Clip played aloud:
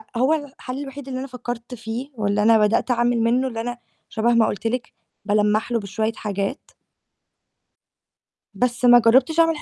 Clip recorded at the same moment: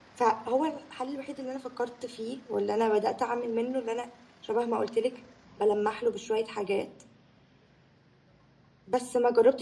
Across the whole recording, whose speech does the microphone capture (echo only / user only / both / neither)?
echo only